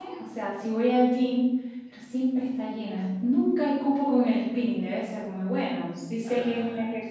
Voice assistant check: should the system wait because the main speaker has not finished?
Yes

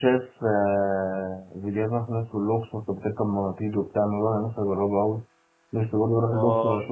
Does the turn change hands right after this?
No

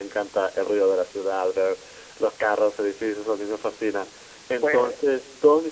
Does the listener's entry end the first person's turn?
No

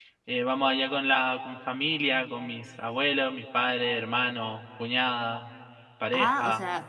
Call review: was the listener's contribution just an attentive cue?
No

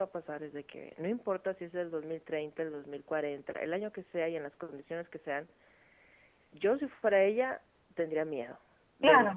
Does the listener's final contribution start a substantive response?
Yes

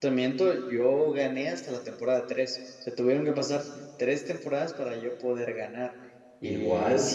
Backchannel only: Yes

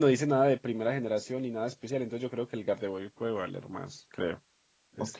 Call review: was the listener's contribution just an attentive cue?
No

